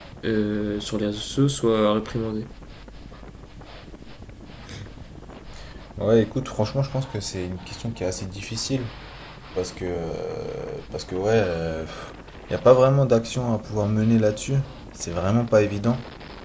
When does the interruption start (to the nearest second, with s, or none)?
none